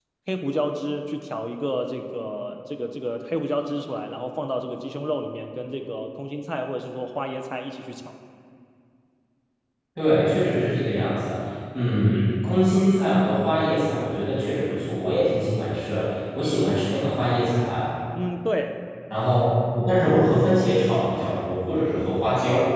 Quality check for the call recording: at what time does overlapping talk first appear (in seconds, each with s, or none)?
none